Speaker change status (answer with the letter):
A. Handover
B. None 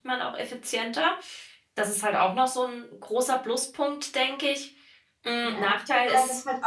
A